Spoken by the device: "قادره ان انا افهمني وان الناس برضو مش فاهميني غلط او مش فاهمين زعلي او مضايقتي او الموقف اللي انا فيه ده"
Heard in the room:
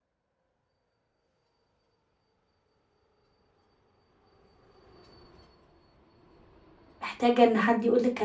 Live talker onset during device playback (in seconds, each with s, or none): 7.0 s